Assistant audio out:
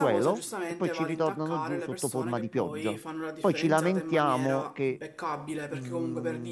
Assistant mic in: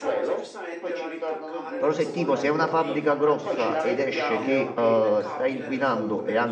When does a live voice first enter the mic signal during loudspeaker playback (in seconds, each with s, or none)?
1.8 s